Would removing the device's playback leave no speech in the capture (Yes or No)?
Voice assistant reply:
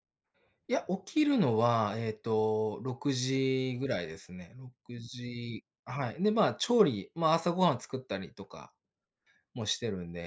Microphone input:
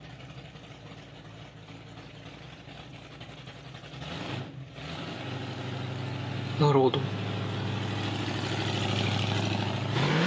No